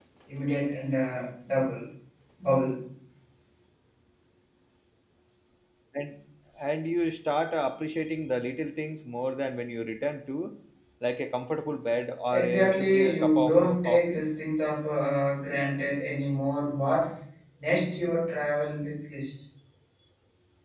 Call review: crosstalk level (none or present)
present